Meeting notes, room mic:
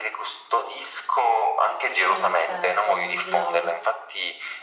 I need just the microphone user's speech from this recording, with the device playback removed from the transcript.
Eh certo, immaginavo.

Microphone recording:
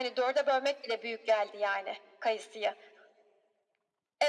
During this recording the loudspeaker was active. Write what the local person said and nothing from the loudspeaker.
none

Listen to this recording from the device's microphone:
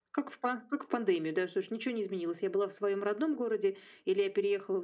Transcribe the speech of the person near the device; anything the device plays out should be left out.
none

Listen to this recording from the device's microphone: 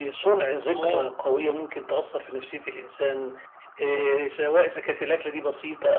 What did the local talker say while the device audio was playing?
آه.

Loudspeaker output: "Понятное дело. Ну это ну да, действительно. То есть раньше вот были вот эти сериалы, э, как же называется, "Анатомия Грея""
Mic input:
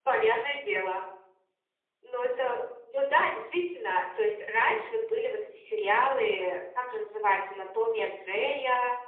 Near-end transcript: none

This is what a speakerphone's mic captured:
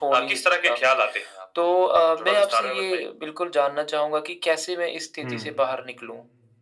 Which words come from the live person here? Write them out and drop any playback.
हुँ।

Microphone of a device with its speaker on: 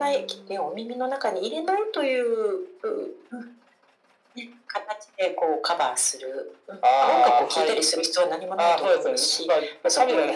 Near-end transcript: none

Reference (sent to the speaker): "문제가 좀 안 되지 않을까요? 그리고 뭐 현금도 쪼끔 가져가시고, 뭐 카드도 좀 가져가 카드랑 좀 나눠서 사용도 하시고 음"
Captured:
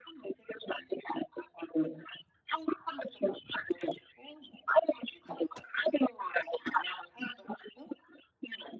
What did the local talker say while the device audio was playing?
none

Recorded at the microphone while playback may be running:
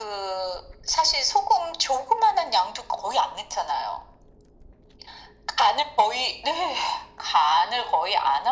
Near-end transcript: none

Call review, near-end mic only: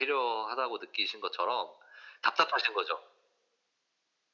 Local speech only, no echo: none

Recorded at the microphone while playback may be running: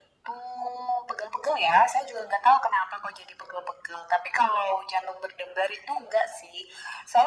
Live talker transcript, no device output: none

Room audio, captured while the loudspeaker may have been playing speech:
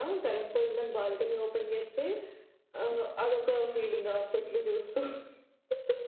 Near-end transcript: none

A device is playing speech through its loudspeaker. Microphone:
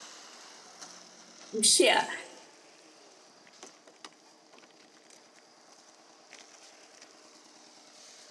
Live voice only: m sh yeah,

